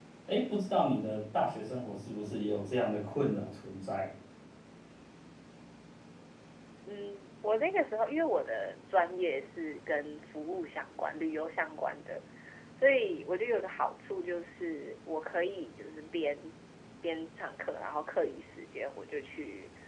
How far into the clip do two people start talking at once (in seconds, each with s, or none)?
none